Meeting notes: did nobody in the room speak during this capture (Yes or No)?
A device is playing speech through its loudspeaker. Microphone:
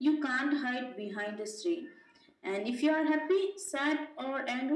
Yes